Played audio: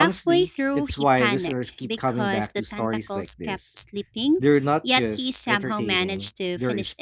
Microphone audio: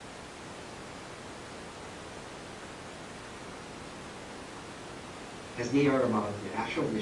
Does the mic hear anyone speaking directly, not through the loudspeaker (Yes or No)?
Yes